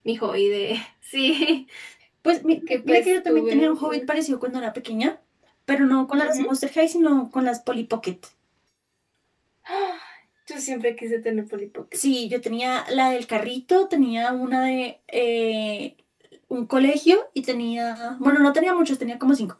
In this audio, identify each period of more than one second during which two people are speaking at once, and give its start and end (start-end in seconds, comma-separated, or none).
2.7-4.1